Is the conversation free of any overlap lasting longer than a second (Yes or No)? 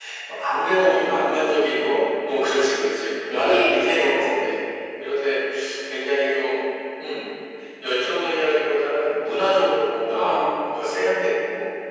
No